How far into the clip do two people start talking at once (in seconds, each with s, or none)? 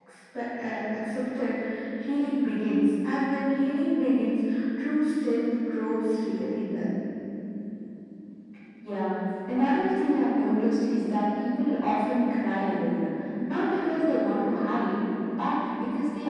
none